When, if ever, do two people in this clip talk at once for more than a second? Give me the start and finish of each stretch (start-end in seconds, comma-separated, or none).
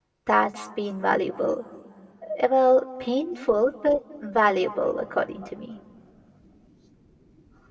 none